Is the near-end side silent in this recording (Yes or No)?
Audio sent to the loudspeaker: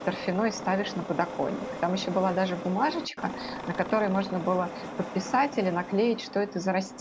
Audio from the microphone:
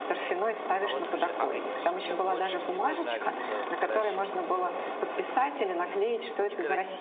No